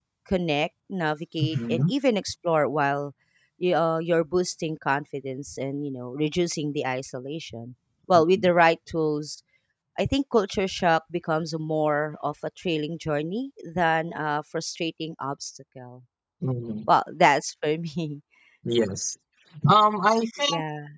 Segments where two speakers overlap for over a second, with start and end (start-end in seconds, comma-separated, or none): none